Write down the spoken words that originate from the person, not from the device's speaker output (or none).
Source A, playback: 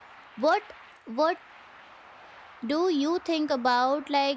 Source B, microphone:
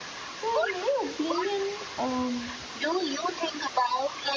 so in my opinion um,